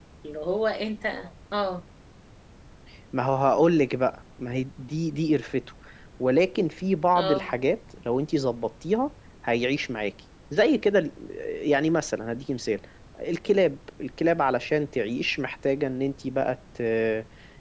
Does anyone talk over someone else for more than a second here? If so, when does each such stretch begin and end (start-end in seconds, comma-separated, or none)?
none